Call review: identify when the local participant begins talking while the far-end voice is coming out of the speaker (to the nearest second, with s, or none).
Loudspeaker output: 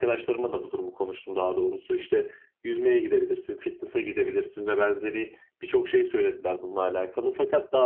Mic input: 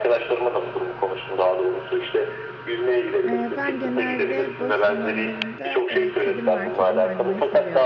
3 s